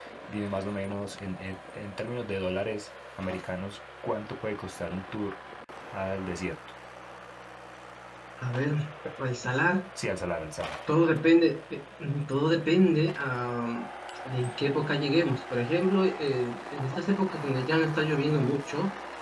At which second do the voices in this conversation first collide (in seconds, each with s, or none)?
none